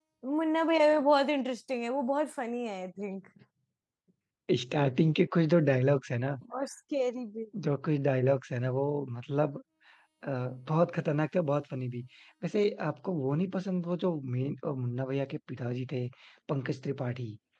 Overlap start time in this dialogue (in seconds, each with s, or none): none